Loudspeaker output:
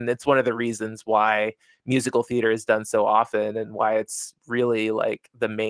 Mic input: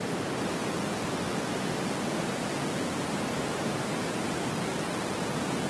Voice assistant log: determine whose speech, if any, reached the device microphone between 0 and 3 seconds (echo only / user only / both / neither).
neither